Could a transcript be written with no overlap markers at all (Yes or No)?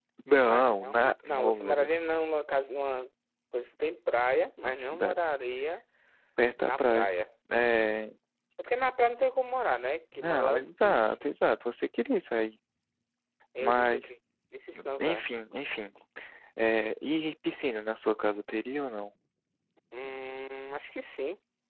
No